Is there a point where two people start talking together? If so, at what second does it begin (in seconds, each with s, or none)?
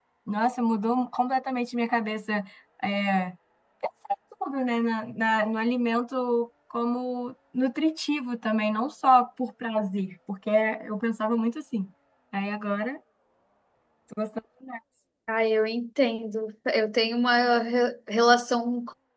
none